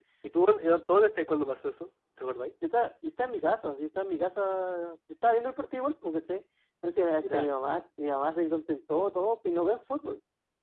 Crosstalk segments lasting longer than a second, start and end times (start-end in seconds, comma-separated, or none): none